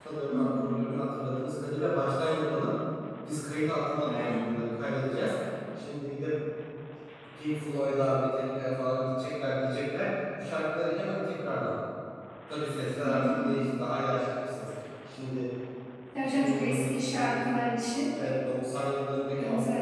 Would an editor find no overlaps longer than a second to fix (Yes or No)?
No